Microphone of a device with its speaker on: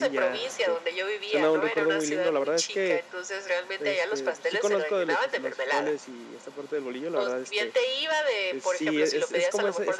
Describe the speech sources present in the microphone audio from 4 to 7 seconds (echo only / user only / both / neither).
both